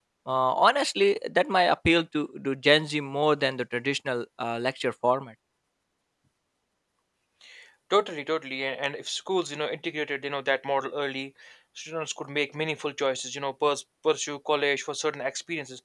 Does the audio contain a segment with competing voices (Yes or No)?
No